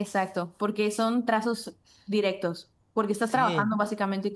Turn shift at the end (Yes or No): No